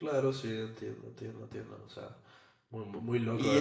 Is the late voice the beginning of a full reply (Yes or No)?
Yes